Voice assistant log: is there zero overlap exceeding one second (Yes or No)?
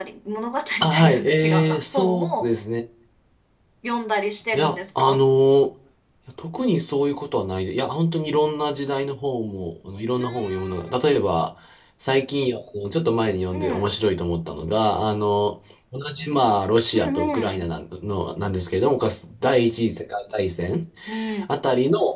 No